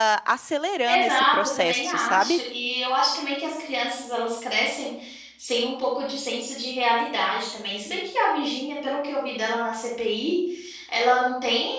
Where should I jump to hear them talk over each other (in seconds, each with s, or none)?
0.9 s